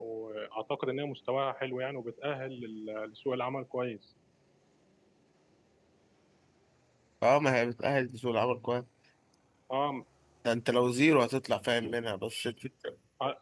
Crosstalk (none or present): none